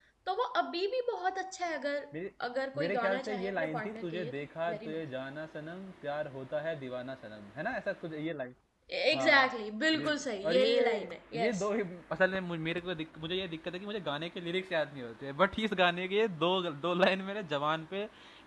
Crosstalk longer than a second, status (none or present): present